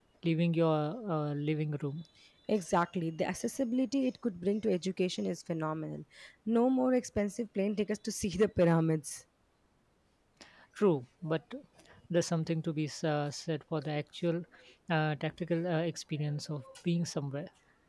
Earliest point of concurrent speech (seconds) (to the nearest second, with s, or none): none